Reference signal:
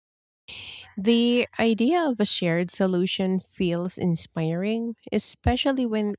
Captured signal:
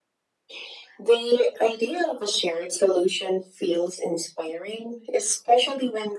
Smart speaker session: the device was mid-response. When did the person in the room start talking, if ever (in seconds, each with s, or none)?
none